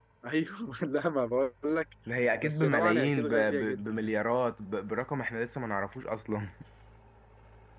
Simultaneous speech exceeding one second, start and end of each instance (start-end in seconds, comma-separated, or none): 2.3-4.1